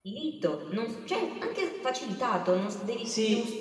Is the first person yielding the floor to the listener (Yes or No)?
Yes